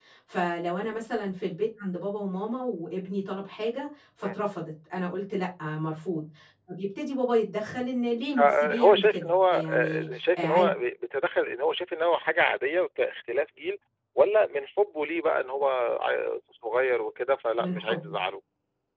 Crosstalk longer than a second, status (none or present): present